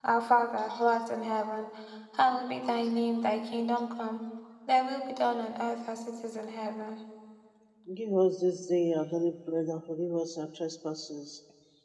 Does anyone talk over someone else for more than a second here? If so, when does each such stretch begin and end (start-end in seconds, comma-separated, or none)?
none